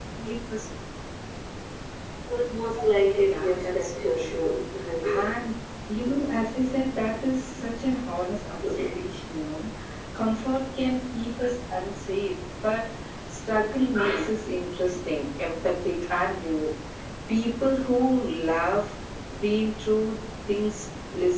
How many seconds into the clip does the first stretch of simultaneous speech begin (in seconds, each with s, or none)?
3.2 s